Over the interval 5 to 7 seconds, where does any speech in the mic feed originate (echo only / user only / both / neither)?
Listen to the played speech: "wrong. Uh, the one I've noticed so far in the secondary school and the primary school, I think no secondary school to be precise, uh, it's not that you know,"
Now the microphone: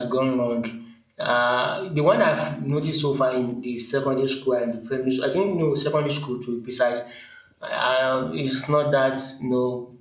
echo only